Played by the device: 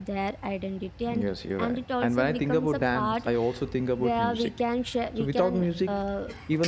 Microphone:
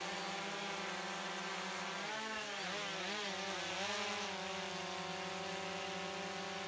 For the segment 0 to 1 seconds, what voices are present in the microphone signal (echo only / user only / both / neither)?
neither